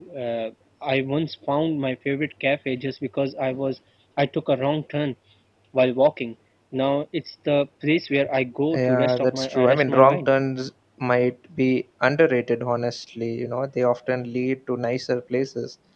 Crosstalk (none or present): present